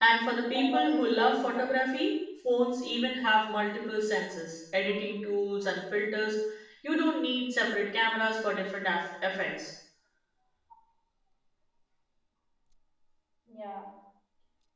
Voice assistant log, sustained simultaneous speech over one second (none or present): present